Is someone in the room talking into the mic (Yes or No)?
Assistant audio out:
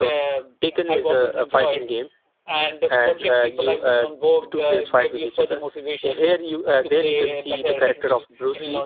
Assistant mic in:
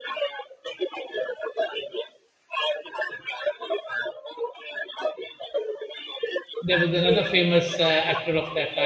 Yes